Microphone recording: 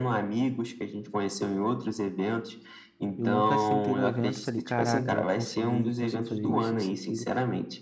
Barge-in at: 3.2 s

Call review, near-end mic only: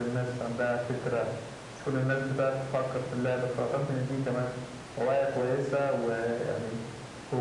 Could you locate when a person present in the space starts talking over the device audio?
none

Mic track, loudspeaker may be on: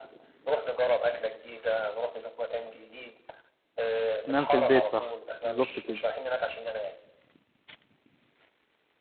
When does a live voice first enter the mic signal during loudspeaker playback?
4.2 s

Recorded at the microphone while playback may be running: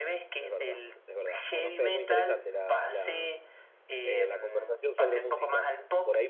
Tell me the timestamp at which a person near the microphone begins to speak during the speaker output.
0.4 s

